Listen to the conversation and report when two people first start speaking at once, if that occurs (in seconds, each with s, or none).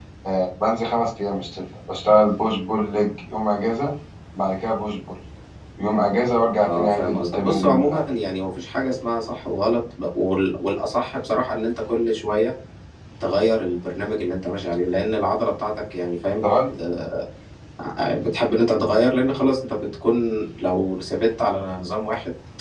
6.6 s